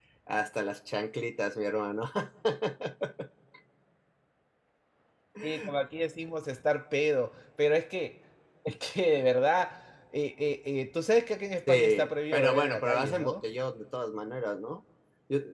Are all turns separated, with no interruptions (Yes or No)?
No